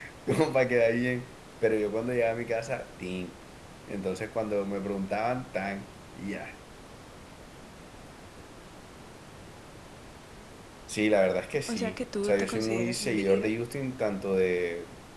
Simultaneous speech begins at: 11.7 s

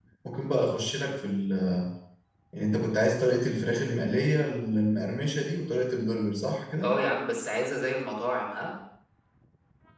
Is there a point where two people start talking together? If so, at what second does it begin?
none

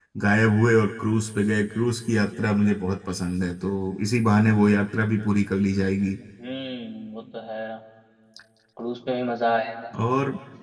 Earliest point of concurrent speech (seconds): none

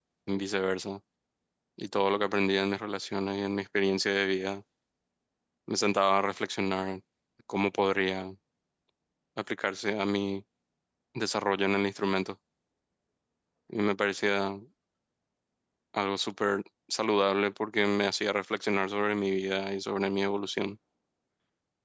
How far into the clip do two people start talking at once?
none

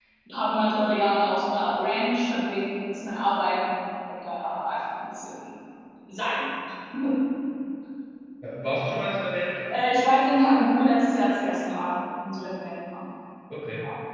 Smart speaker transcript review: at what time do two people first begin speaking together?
none

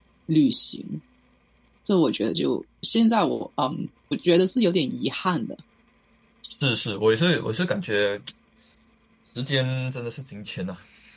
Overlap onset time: none

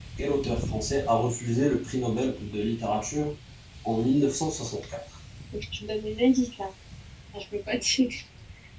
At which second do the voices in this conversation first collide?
none

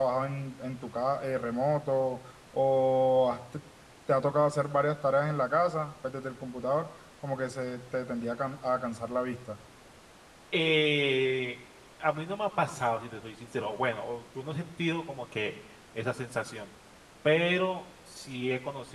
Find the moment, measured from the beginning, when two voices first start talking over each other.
none

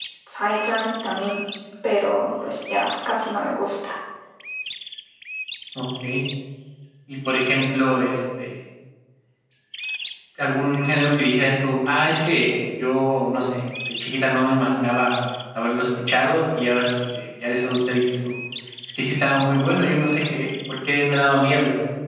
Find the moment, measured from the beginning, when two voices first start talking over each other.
none

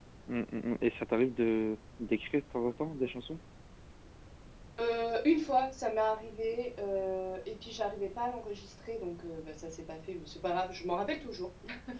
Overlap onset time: none

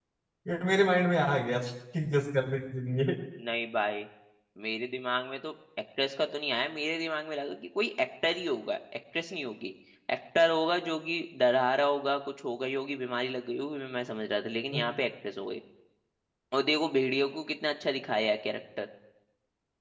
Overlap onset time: none

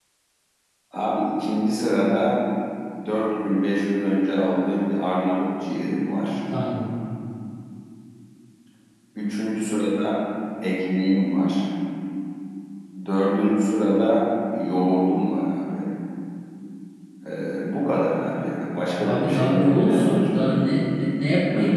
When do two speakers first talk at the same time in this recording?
19.0 s

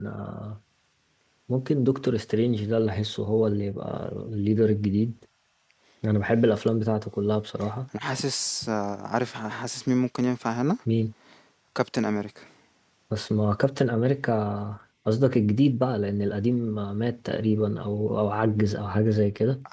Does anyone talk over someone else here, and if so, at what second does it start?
none

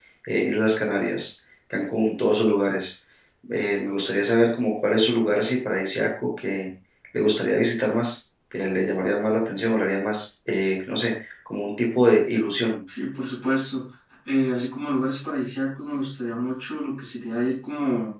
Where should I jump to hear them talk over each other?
none

